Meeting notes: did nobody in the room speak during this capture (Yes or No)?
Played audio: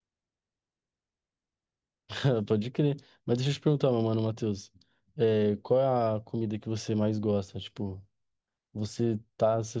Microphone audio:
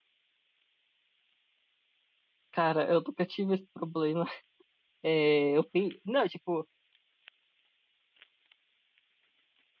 No